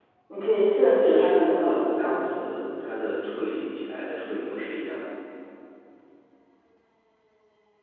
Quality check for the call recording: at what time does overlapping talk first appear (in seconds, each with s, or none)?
1.0 s